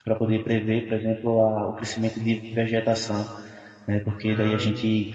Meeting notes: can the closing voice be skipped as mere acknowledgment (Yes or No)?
Yes